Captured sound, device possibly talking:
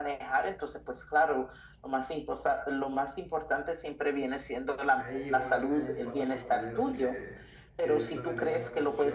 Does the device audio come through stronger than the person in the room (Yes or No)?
Yes